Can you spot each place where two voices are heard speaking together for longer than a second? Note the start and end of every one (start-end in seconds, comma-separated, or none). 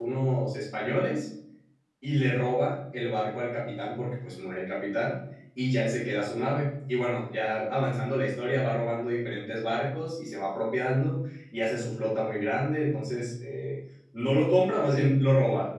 none